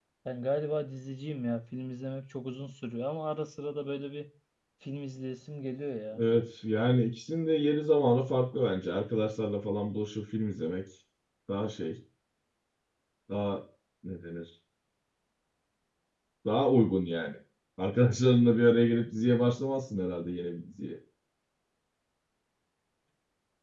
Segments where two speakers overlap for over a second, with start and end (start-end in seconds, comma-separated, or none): none